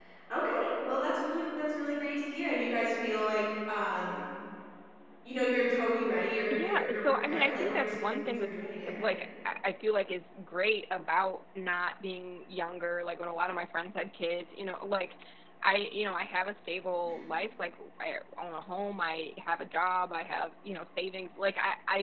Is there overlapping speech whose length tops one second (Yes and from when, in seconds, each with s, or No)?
Yes, from 6.5 s